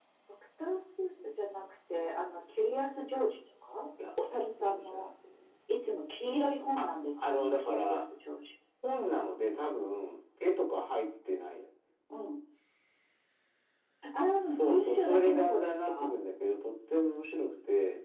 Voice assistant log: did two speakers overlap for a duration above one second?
Yes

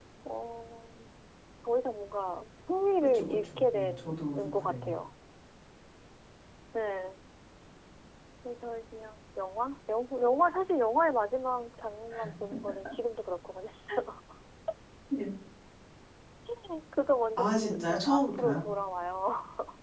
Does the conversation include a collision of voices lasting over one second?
Yes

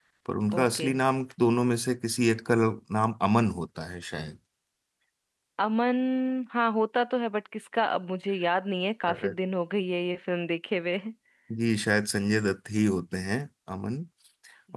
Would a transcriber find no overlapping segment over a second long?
Yes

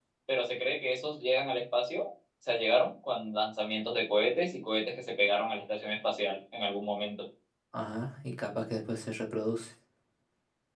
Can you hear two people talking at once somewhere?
No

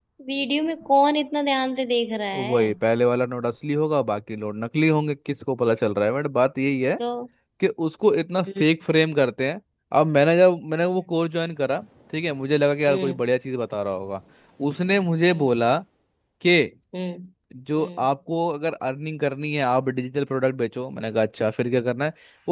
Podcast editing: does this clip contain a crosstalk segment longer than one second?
No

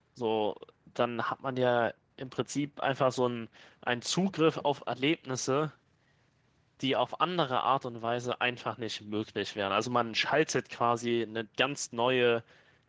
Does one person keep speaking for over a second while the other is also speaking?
No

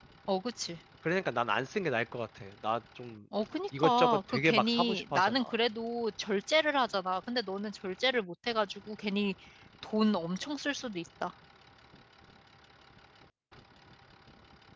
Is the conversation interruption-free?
No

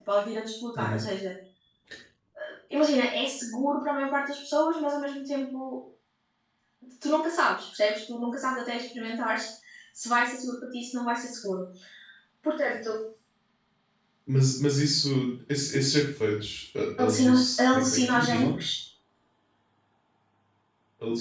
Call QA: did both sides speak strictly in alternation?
No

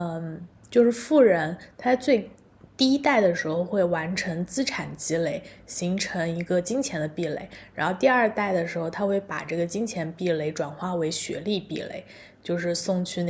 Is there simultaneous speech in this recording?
No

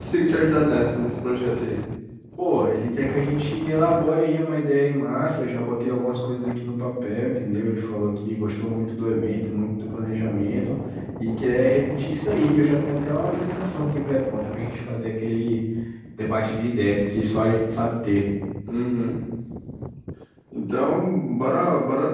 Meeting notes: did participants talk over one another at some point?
No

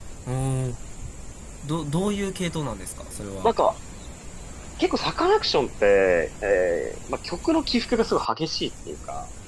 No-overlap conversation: Yes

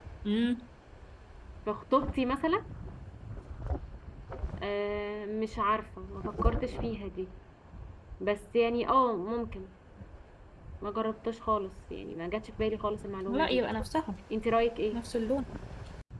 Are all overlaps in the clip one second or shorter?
Yes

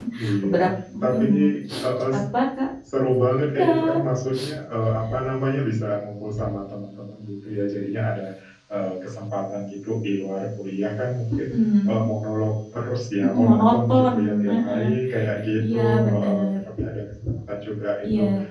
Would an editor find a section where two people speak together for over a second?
Yes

